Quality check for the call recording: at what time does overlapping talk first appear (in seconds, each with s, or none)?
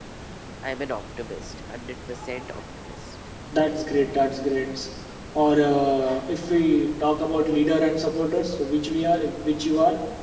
none